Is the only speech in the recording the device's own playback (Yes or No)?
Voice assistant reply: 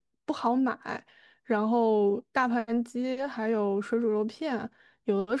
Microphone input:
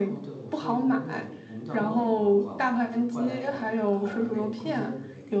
No